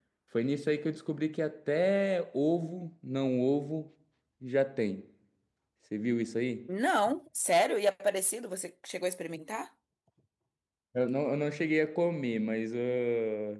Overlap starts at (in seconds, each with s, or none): none